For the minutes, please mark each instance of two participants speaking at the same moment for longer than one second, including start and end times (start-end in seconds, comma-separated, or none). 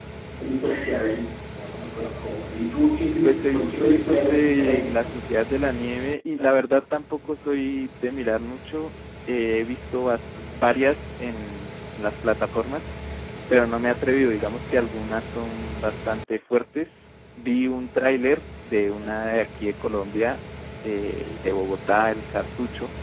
3.2-5.1